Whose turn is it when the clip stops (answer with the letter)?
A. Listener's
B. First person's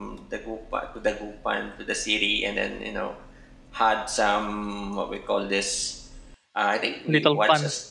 B